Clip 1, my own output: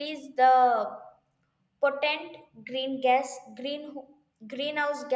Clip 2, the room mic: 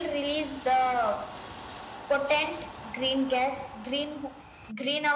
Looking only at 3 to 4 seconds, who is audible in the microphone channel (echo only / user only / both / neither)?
echo only